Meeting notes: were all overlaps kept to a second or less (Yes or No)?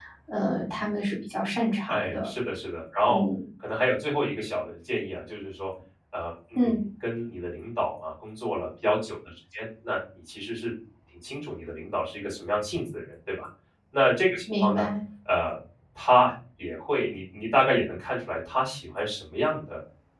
Yes